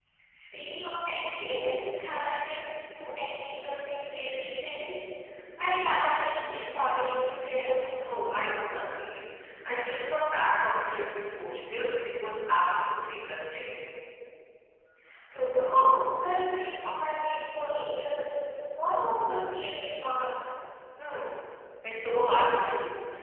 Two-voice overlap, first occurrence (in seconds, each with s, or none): none